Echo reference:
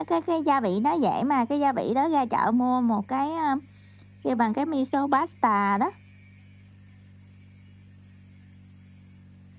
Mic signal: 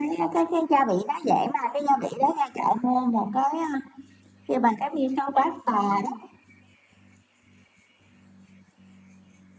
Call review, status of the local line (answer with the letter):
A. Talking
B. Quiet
A